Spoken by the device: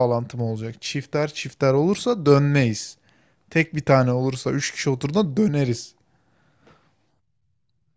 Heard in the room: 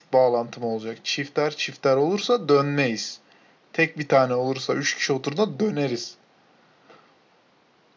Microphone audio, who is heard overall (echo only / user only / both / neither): echo only